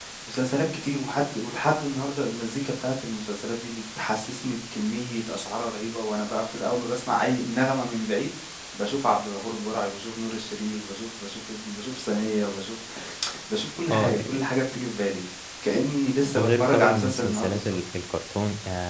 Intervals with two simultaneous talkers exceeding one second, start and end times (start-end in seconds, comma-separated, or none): 16.4-17.8